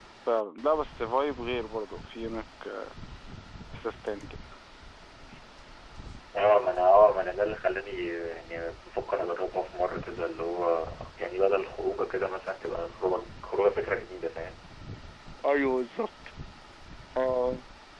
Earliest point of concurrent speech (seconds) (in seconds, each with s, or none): none